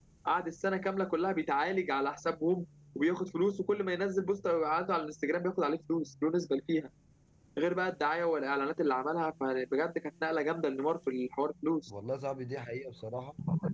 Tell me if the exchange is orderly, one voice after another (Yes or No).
Yes